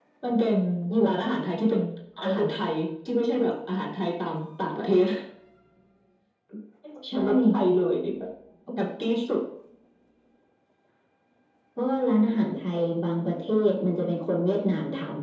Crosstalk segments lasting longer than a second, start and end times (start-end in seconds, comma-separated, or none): none